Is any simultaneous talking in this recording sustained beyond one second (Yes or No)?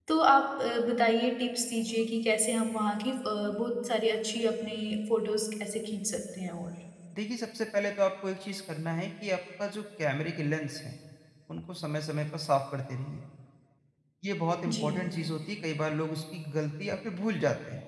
No